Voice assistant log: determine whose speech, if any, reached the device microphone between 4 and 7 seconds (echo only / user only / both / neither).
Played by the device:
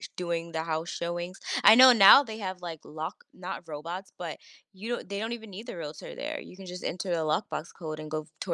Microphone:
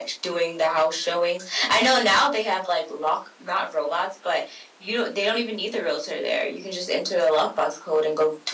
echo only